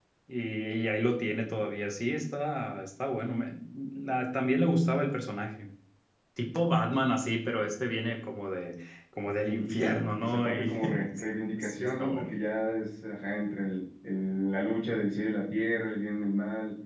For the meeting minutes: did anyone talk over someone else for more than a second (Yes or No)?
Yes